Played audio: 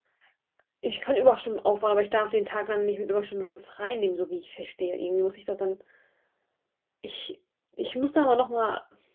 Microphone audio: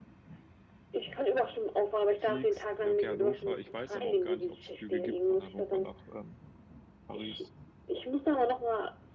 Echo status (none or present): present